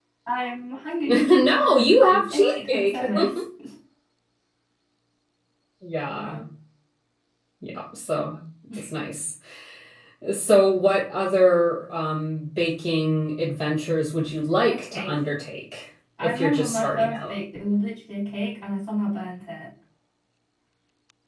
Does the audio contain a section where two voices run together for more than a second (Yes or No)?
Yes